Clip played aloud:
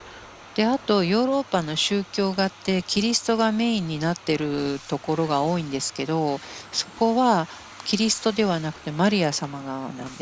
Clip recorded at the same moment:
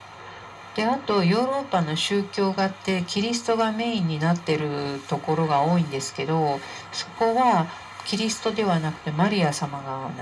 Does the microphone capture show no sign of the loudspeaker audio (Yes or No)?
No